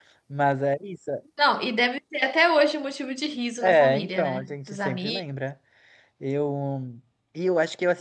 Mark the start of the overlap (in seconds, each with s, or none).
3.6 s